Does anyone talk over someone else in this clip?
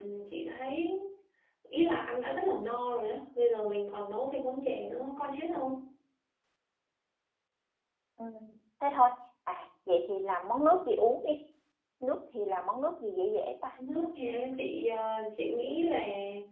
No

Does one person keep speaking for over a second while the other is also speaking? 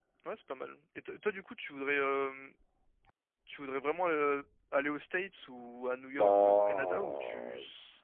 Yes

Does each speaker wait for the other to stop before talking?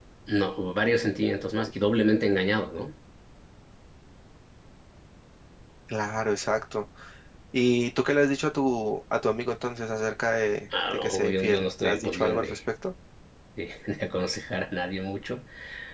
No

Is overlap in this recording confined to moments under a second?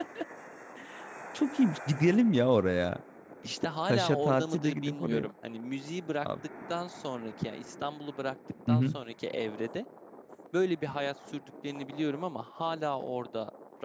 No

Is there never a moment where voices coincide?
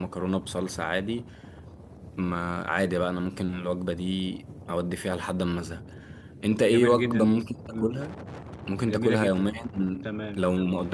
No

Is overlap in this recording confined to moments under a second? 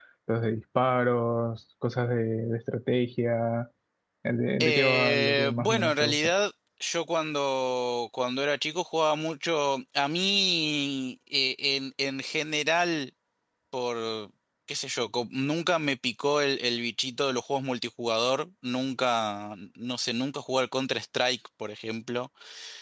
No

